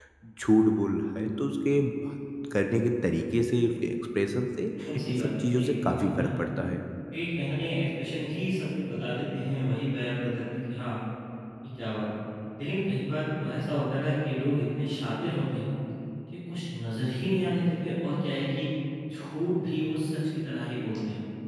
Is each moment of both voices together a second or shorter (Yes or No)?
No